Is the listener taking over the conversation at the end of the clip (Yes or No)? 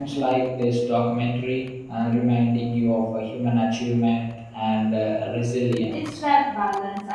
Yes